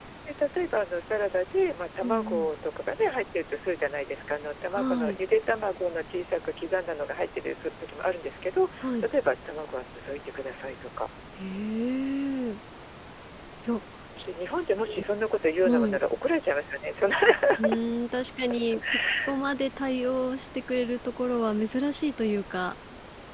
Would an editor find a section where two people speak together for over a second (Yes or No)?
No